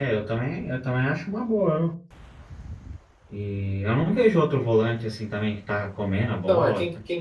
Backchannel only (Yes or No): No